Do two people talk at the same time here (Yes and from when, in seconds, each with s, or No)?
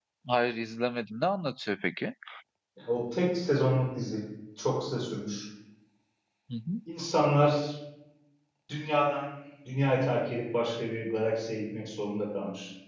No